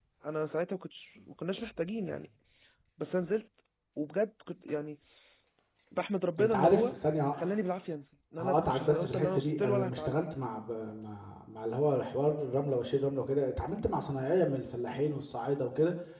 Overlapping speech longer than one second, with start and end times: 8.4-10.2

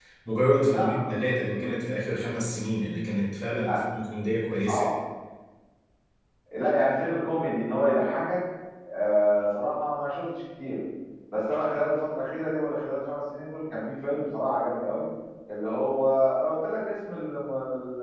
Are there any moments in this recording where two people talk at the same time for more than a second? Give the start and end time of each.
0.6-1.8

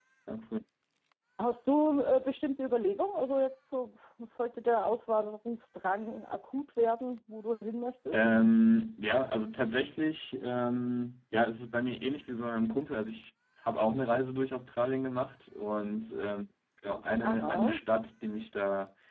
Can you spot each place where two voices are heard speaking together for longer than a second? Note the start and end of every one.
none

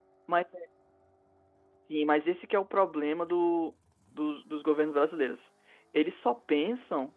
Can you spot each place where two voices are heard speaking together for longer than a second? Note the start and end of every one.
none

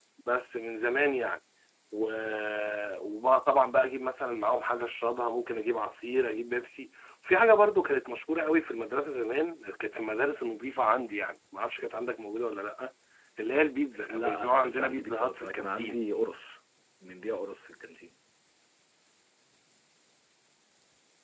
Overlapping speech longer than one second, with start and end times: 14.1-16.0

